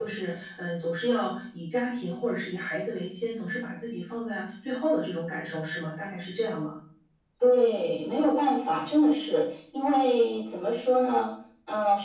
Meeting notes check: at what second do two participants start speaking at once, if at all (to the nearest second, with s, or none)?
none